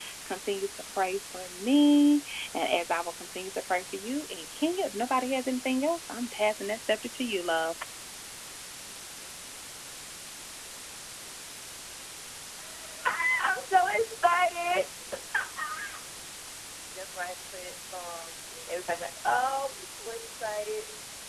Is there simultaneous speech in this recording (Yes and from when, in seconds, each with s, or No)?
No